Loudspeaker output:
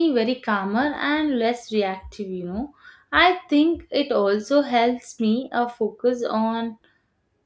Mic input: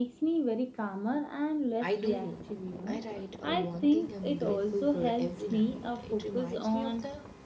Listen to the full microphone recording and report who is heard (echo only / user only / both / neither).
both